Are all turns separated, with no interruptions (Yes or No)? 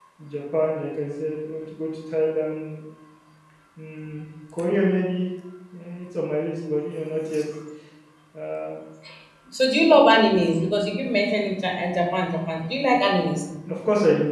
Yes